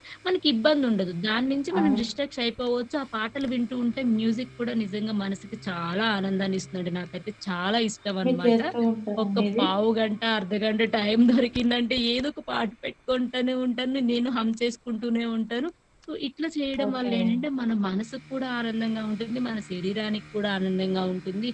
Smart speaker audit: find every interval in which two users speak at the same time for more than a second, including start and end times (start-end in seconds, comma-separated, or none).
none